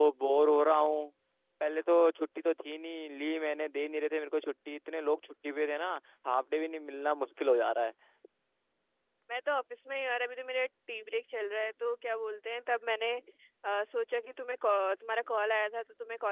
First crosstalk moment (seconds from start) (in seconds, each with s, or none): none